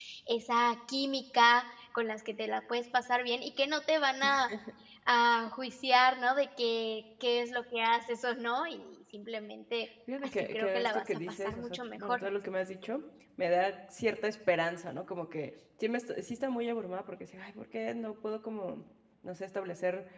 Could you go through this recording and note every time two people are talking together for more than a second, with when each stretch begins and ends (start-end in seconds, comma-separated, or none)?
10.2-12.2